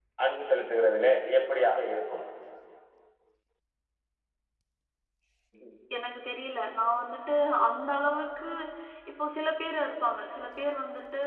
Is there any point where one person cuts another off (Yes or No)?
No